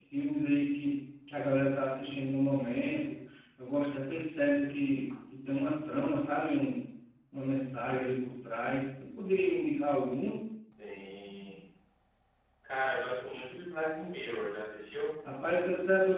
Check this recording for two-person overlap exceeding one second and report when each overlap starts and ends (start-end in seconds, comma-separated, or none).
none